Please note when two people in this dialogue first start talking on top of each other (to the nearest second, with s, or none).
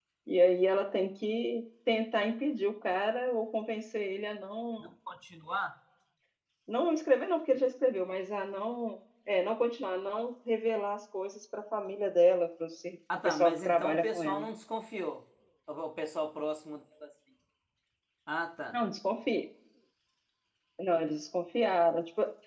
13 s